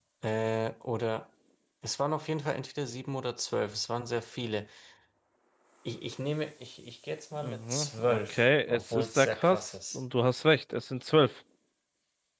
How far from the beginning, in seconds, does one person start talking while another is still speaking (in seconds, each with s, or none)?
7.4 s